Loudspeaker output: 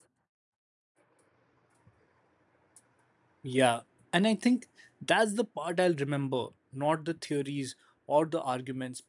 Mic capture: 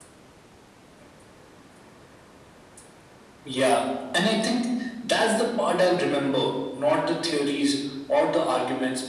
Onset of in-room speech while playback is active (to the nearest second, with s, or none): none